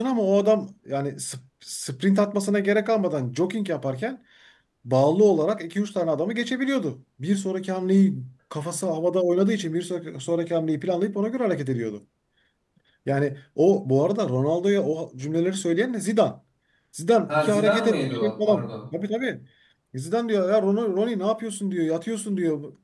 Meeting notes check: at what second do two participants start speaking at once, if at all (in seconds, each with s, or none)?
17.3 s